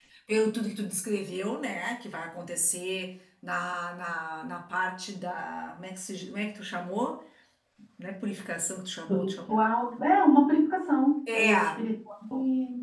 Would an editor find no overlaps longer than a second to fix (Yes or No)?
Yes